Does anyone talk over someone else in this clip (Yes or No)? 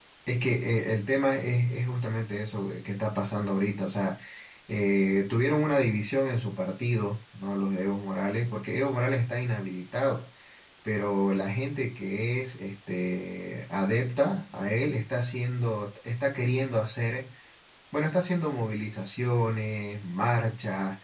No